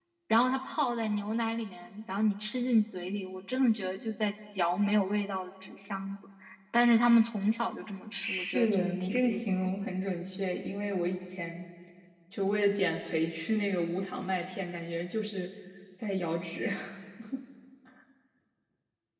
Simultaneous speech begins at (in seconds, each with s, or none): 8.2 s